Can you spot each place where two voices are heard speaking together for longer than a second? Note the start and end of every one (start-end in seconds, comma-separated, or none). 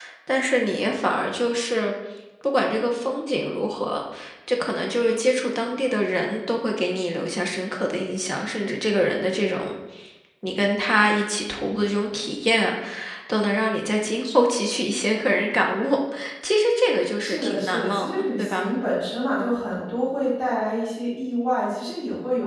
17.2-18.7